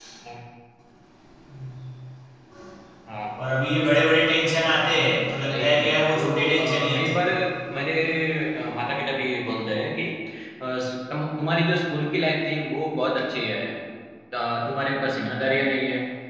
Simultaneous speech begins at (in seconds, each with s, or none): 5.4 s